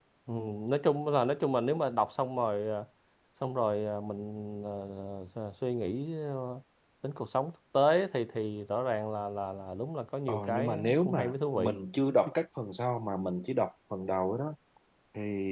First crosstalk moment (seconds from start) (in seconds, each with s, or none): 10.3 s